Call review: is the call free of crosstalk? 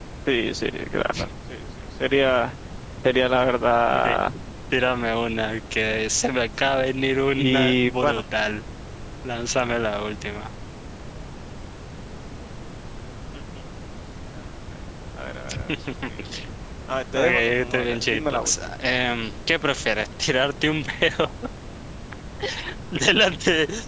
No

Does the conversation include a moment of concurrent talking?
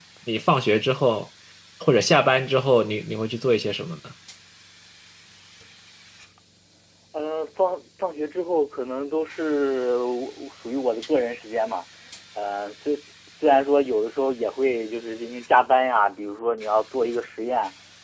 No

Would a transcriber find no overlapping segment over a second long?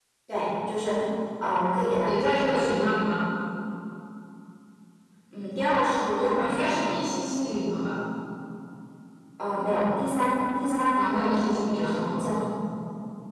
No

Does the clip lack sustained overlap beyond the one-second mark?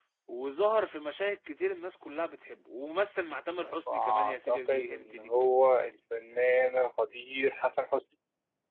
No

